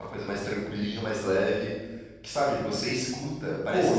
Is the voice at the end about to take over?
Yes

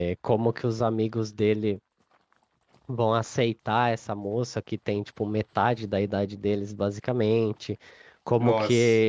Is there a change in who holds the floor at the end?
No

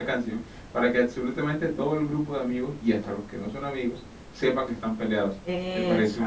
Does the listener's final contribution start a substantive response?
No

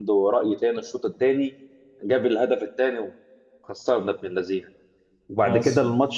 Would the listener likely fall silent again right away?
Yes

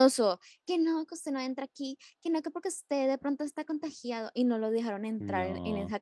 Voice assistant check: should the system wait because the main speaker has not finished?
Yes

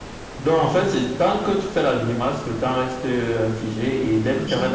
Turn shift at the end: No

